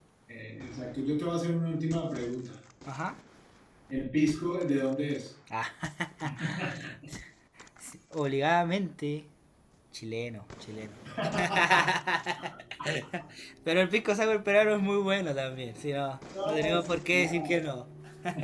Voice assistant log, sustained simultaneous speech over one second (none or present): present